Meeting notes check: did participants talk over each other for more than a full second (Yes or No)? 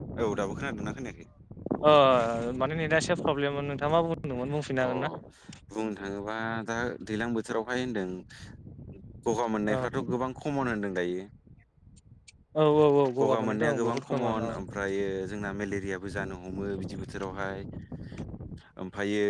Yes